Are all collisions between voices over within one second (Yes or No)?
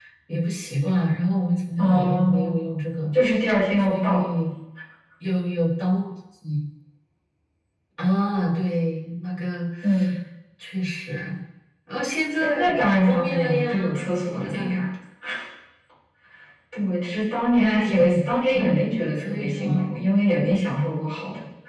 No